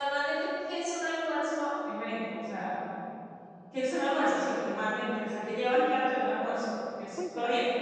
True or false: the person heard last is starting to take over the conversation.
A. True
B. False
A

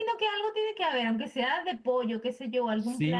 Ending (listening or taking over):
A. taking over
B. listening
A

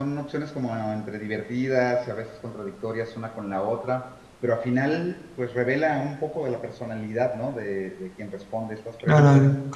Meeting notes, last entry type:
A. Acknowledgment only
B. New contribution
B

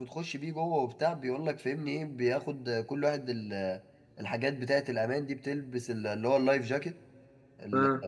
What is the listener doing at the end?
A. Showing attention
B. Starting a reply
A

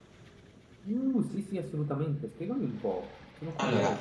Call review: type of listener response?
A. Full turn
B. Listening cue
A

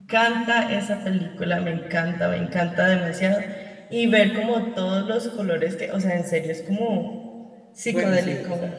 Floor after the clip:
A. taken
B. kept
A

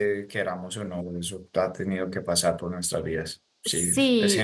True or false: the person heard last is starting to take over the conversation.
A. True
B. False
A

